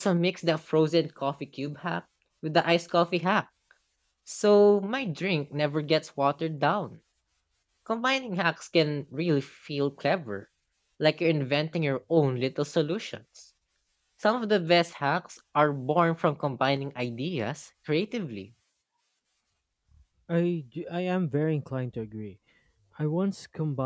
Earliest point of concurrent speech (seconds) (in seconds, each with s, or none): none